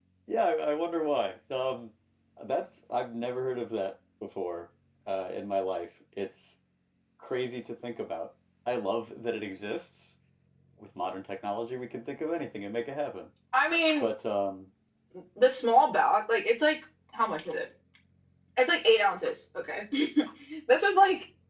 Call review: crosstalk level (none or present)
none